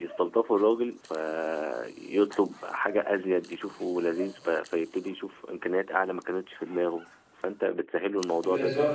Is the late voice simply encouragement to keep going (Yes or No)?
No